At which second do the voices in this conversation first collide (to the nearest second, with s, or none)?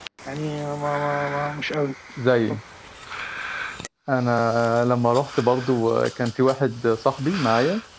none